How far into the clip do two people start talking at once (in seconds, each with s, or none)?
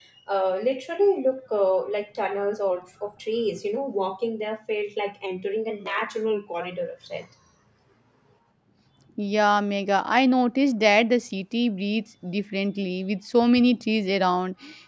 none